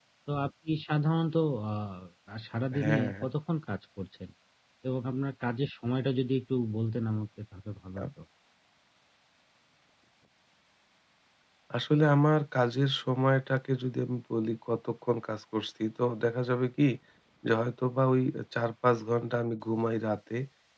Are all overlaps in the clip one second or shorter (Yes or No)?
Yes